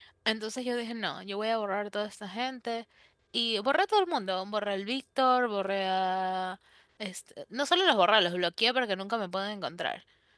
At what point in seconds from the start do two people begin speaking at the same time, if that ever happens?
none

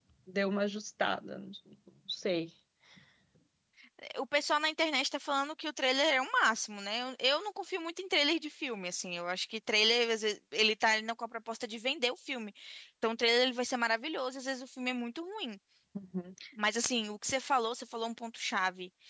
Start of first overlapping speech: none

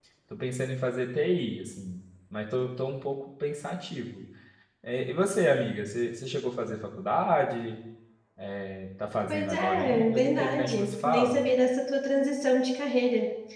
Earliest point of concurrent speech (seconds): 9 s

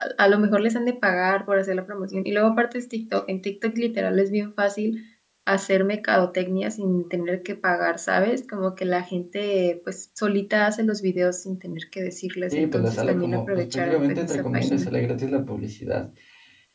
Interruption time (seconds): 13 s

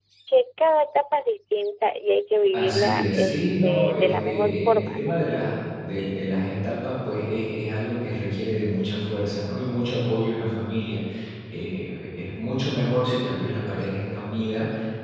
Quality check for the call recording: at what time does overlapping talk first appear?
3 s

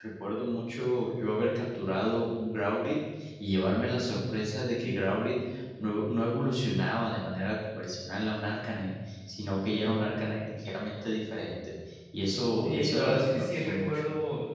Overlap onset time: 13 s

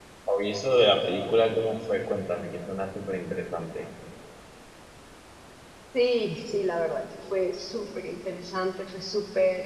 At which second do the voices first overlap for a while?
none

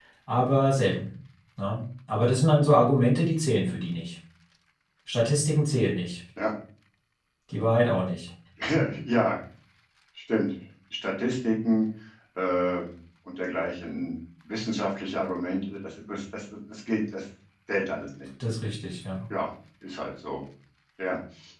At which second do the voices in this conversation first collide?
none

